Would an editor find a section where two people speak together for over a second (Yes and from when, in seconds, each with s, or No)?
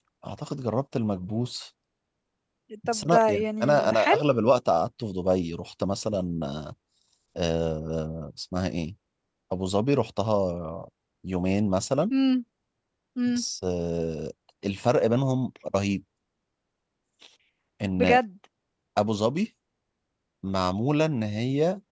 Yes, from 2.9 s